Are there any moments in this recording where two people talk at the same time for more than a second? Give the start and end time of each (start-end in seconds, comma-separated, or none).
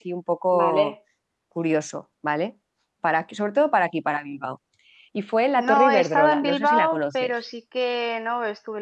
5.5-7.3